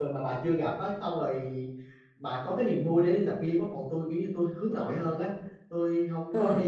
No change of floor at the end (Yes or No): Yes